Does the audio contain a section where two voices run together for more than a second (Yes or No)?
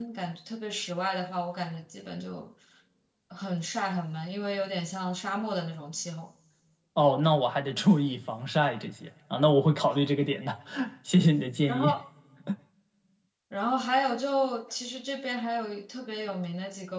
No